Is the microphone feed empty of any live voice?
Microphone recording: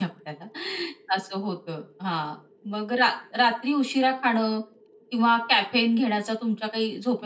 No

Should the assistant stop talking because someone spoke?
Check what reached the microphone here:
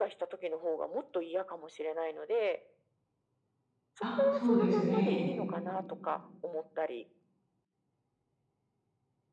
Yes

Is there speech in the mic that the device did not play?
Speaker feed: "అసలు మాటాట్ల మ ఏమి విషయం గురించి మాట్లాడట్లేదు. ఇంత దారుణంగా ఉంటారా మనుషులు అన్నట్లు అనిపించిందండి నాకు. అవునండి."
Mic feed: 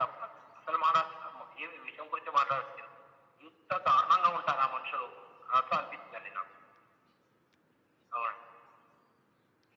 No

